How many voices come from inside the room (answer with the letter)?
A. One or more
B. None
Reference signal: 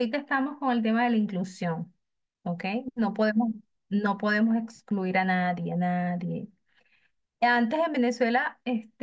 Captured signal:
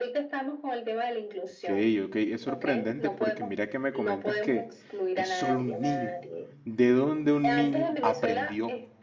A